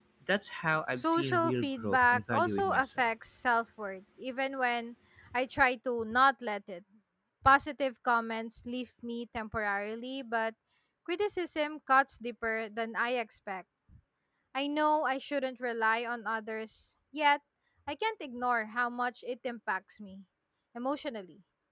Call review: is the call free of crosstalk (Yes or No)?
No